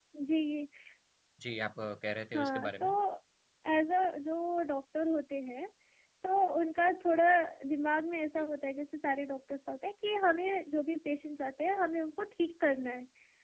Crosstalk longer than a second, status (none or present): none